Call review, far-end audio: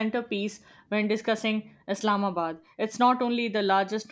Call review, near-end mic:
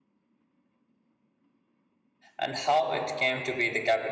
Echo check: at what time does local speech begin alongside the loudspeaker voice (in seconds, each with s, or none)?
2.4 s